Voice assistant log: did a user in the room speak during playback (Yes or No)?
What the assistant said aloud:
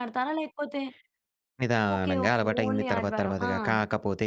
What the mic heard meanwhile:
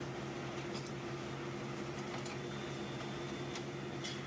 No